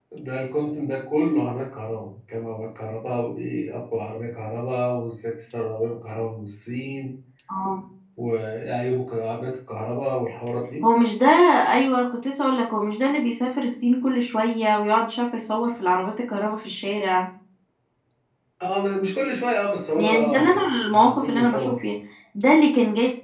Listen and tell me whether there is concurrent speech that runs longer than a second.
Yes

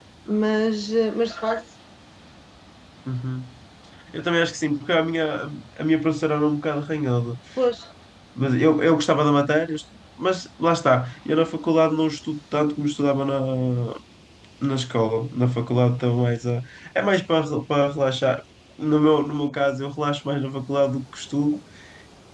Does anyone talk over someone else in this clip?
No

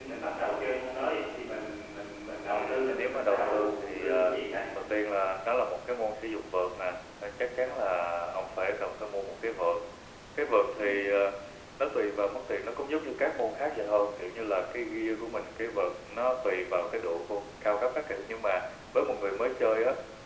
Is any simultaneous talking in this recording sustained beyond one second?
Yes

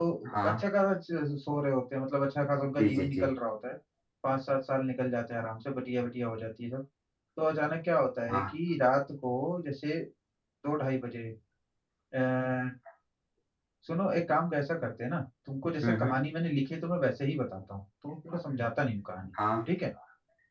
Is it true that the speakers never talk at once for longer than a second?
Yes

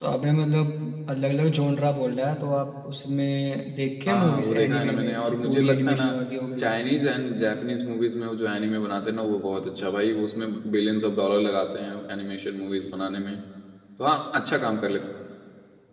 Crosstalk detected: Yes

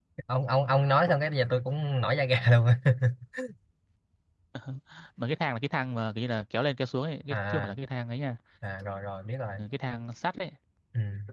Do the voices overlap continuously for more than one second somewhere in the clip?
No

